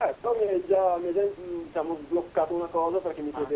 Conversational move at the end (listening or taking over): listening